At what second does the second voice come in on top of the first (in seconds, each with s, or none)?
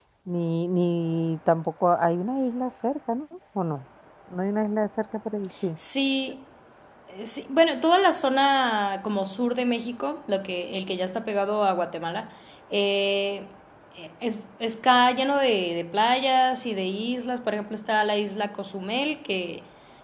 none